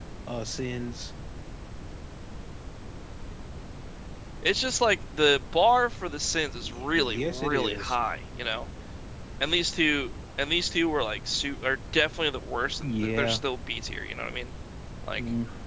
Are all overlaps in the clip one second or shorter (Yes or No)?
No